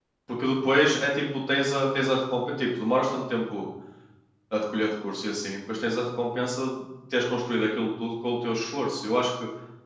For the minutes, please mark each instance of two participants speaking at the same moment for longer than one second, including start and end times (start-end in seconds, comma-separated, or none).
none